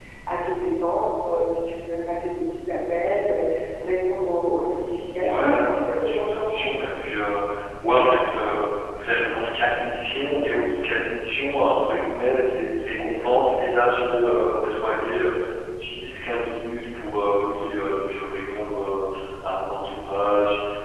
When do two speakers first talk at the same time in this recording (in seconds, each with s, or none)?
5.2 s